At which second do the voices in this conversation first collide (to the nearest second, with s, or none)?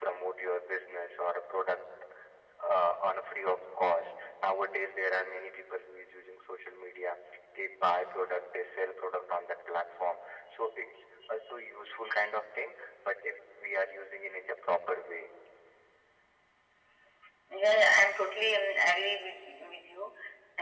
none